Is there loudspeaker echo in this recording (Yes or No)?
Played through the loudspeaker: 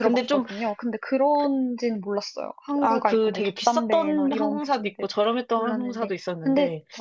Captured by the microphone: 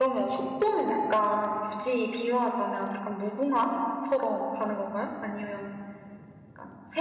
No